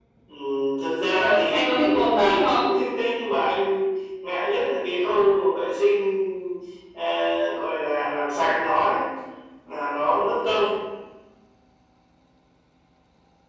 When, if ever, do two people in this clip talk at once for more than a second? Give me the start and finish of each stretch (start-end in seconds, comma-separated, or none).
1.1-2.6